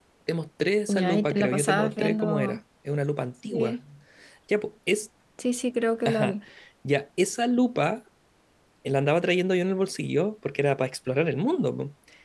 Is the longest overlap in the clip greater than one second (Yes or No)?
Yes